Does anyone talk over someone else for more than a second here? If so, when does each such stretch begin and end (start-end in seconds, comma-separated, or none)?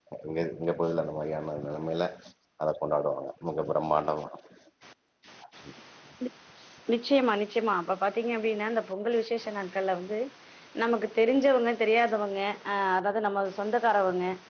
none